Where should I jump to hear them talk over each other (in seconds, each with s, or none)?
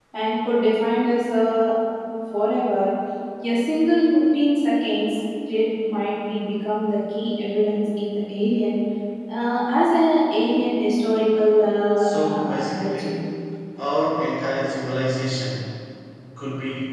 12.0 s